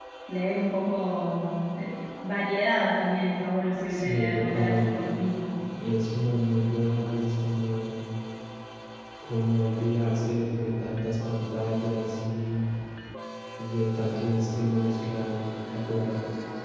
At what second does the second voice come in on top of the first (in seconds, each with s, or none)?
3.9 s